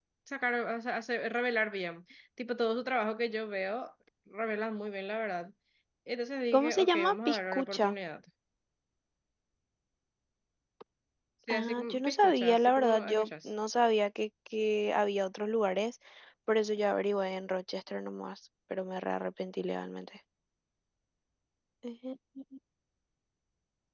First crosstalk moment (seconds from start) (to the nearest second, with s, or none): 7 s